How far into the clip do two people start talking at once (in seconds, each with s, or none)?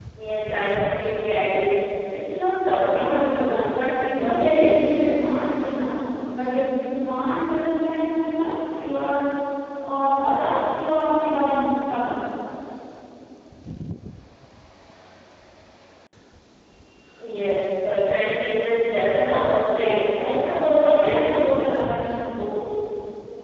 2.9 s